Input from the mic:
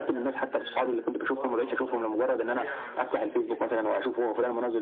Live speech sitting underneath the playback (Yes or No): Yes